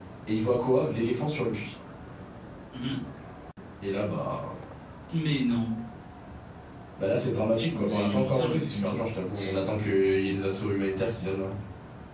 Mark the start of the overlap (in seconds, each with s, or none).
7.8 s